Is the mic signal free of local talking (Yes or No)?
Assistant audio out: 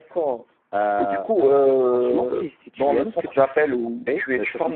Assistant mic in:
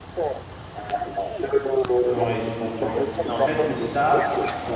No